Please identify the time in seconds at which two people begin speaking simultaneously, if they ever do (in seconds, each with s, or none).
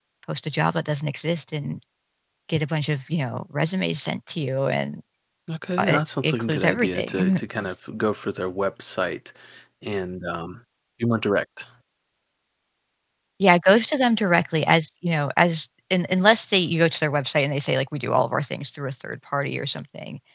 5.8 s